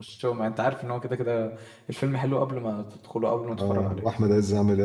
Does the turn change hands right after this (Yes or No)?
Yes